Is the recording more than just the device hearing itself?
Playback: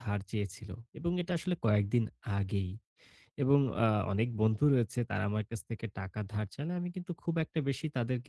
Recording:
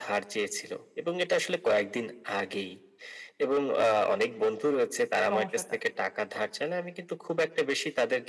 Yes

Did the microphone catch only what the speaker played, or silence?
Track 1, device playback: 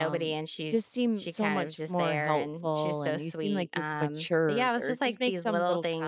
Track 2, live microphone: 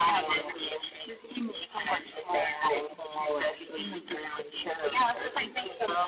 Yes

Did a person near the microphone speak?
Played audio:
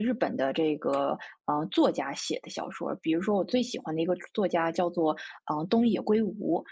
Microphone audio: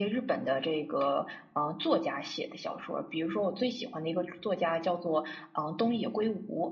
No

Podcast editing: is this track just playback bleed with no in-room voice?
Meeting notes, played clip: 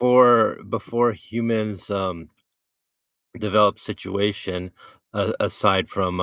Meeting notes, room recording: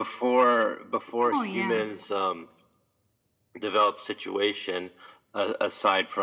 No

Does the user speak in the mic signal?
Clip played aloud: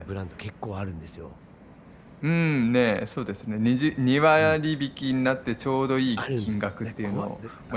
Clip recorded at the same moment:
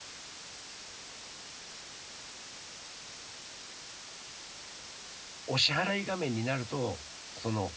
Yes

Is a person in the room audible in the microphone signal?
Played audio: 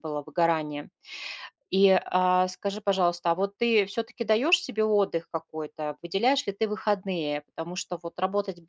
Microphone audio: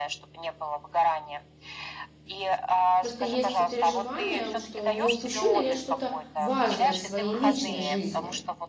Yes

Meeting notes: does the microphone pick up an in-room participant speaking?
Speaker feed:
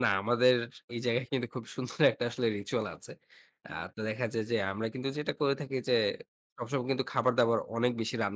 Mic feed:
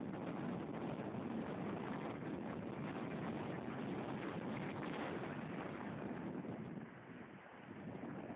No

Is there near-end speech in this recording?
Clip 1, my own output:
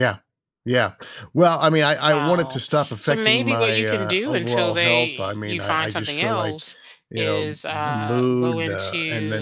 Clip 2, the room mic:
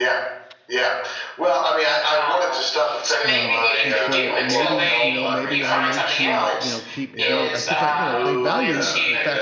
Yes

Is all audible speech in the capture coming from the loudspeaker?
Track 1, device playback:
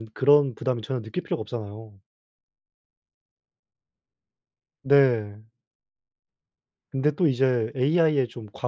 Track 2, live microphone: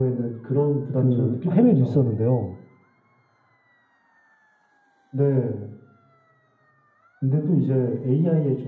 No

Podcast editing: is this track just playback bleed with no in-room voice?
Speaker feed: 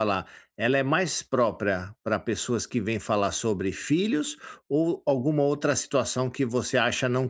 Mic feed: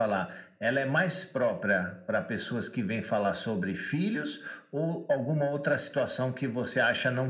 Yes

